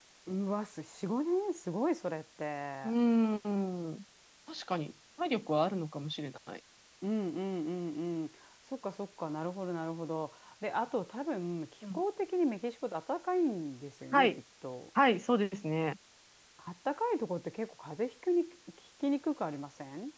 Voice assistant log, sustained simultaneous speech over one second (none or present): none